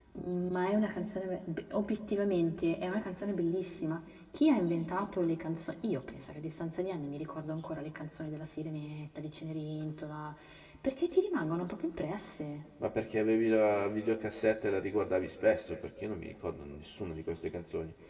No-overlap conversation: Yes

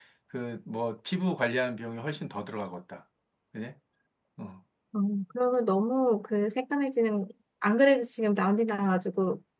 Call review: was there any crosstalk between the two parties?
No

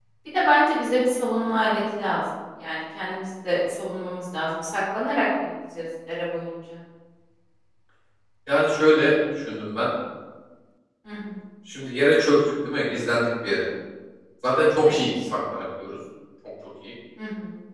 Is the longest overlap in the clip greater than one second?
No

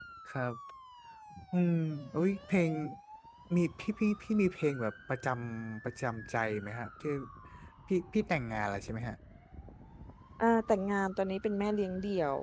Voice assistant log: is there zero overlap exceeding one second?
Yes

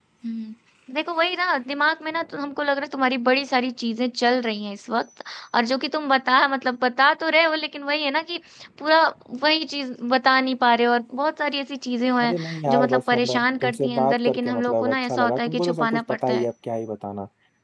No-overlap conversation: No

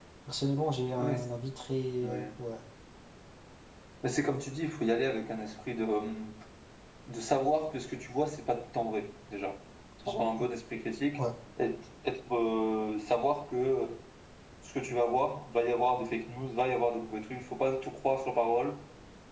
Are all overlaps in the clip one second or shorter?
Yes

